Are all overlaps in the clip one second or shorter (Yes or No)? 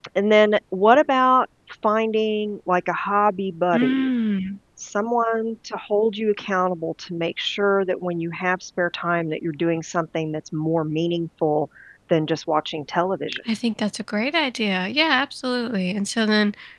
Yes